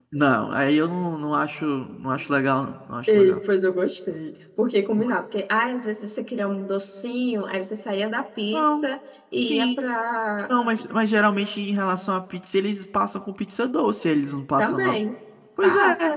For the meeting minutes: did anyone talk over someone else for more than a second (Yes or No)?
No